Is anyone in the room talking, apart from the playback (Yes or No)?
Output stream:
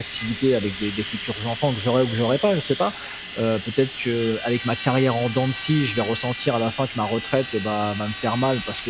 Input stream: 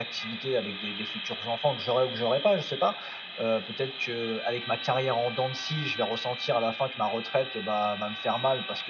No